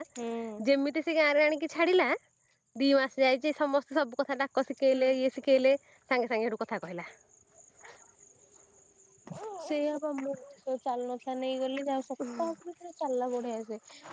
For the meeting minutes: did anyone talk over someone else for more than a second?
No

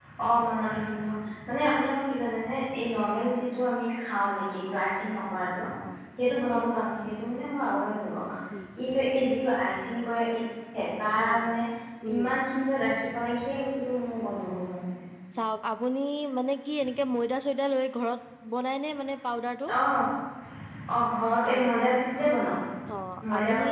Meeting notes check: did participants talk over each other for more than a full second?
No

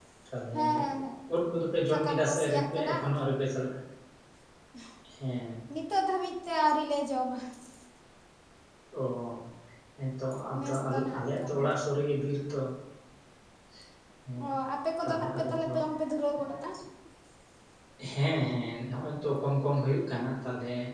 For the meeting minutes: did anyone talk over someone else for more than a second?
Yes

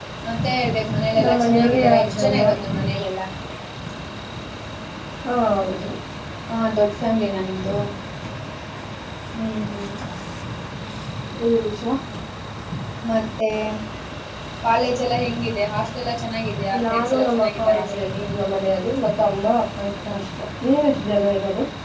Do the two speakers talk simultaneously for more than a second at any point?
Yes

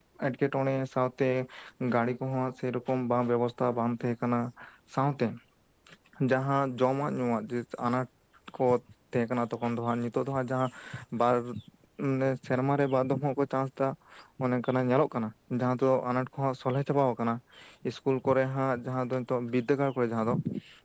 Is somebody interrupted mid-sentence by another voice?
No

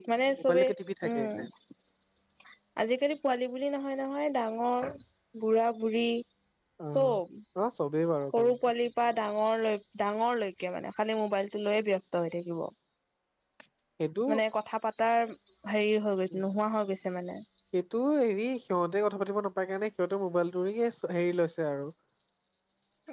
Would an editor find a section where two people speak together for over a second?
No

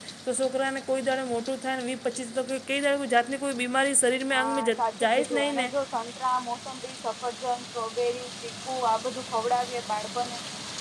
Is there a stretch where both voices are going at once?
Yes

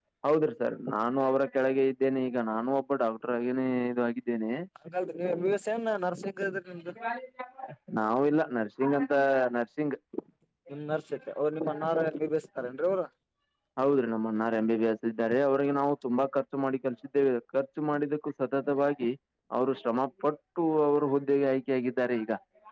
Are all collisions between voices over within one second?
Yes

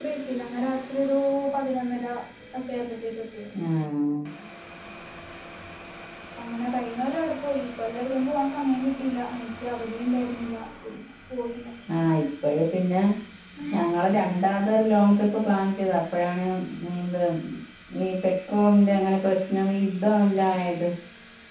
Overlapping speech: No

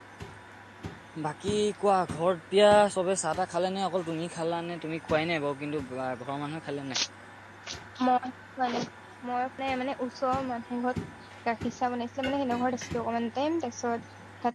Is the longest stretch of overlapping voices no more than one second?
Yes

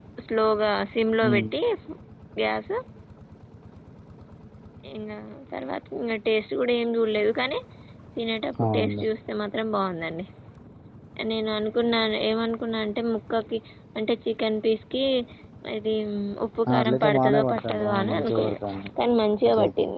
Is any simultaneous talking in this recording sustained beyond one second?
Yes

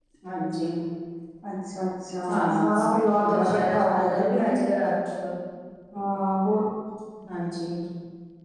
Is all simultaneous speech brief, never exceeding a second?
No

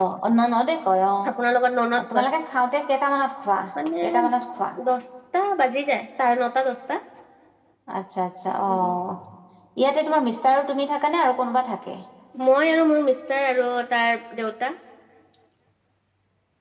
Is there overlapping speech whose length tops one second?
No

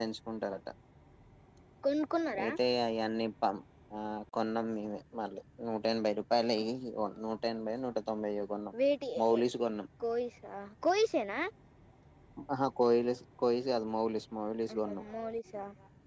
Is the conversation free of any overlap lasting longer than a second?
Yes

